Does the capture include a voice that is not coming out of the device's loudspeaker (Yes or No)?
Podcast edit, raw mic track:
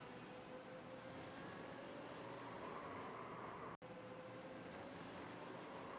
No